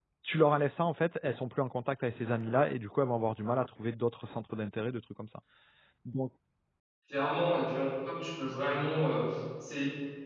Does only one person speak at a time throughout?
Yes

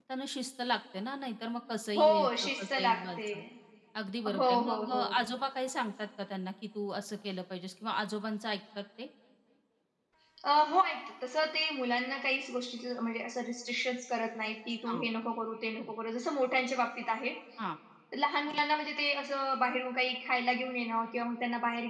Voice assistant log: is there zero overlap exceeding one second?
No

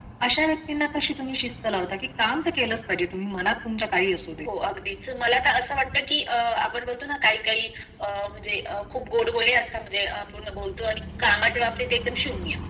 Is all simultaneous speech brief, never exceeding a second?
Yes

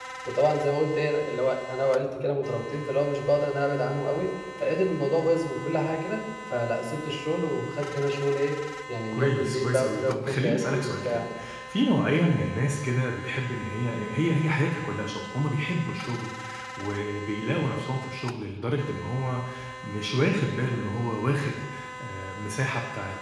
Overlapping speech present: Yes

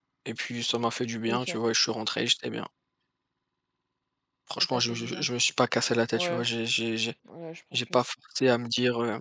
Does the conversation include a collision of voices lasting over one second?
No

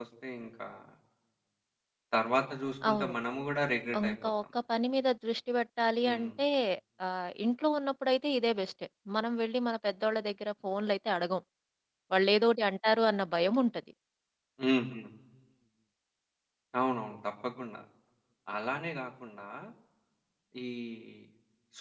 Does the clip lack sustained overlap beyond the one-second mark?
Yes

